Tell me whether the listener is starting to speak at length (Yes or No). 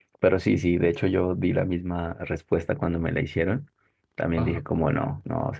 No